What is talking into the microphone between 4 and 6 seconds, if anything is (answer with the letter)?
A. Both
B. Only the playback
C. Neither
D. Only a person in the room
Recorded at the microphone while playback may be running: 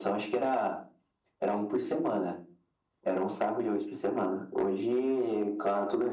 B